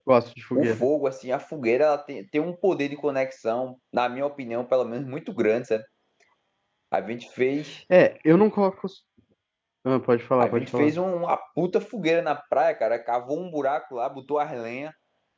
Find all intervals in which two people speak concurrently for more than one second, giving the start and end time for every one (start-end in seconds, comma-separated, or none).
none